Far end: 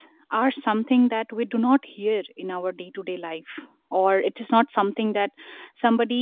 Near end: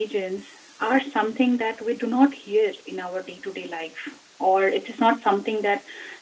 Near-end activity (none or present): none